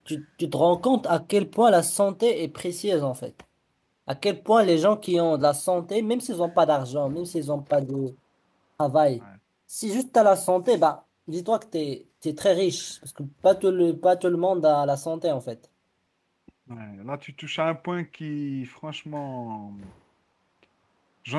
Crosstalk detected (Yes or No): No